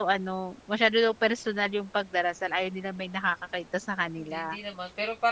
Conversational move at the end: taking over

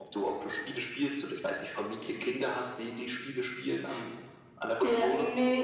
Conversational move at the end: taking over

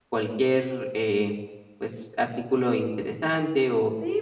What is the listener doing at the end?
taking over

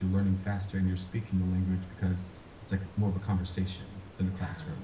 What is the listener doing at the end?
taking over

